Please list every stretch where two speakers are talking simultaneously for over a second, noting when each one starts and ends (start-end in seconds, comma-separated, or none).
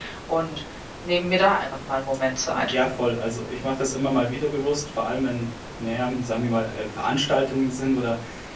none